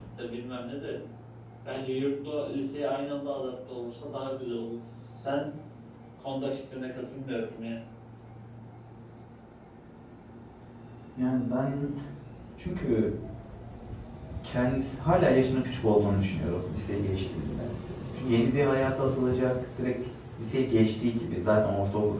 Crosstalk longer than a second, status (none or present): none